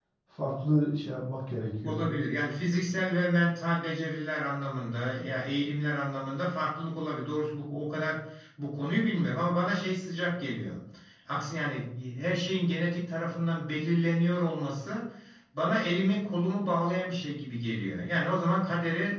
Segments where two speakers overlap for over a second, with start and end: none

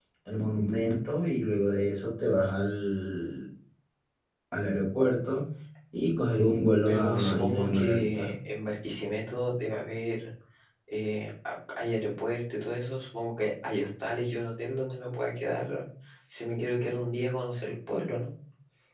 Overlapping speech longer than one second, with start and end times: 6.8-8.4

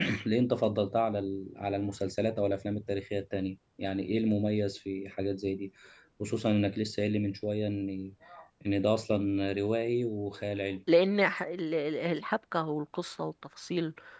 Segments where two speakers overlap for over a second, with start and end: none

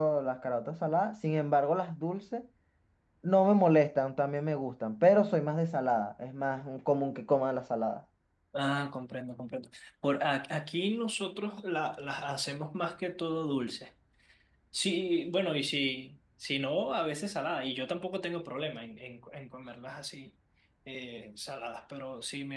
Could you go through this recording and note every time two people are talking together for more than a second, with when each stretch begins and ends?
none

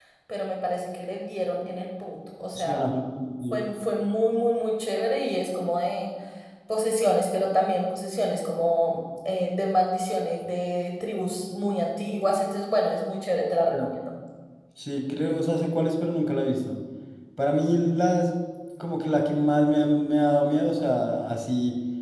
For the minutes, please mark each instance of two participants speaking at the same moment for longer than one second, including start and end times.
none

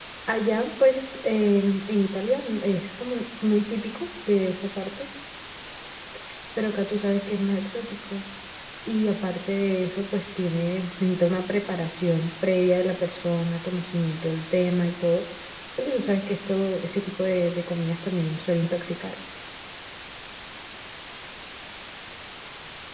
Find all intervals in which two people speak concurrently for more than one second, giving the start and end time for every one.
none

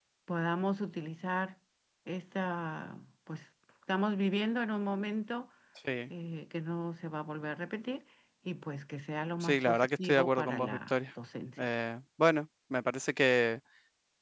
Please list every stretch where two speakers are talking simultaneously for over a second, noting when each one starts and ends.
9.4-11.0

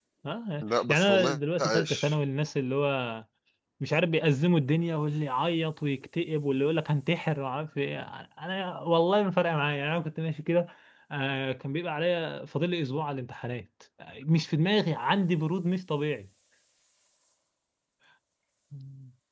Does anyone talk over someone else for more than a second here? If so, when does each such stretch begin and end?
0.6-2.2

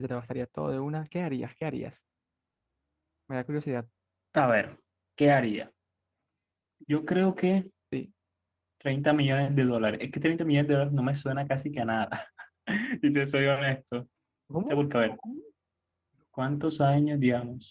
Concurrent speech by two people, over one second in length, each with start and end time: none

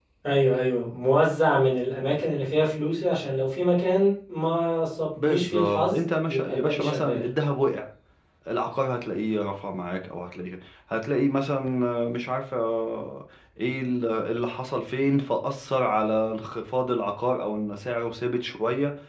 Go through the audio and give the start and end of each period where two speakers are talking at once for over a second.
5.2-7.2

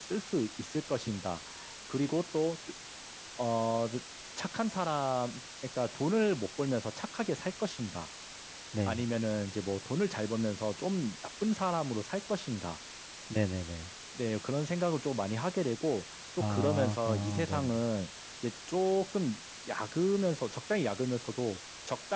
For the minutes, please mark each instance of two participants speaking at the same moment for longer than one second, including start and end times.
16.4-17.7

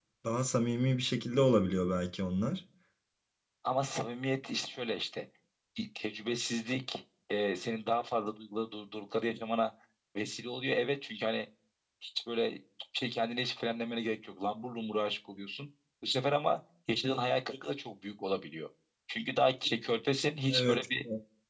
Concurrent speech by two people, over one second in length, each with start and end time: none

